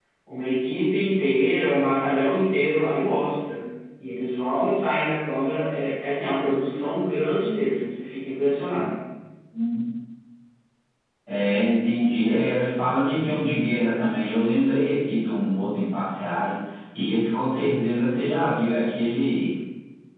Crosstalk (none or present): none